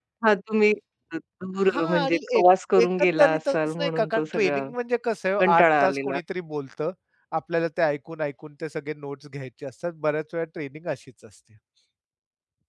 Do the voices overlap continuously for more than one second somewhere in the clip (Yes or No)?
Yes